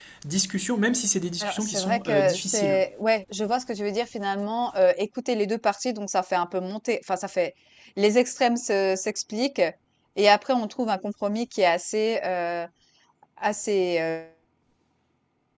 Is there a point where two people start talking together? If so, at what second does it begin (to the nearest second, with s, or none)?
1 s